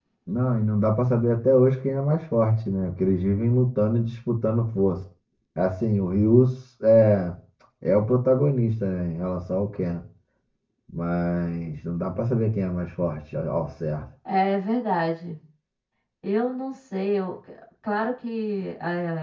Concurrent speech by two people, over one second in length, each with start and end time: none

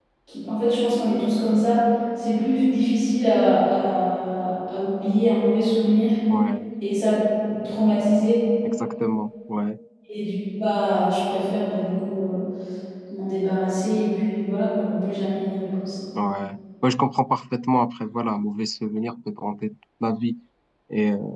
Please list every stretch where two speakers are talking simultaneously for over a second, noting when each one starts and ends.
none

